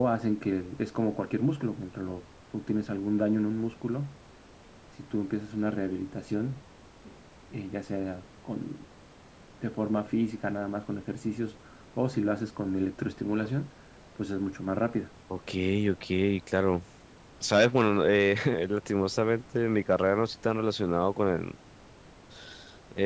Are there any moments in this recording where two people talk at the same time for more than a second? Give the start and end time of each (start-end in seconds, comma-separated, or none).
none